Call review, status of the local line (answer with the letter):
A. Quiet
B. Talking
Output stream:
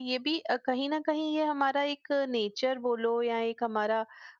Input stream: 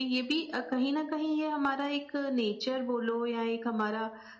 A